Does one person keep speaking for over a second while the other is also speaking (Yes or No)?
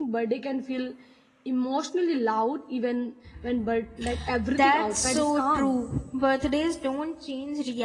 Yes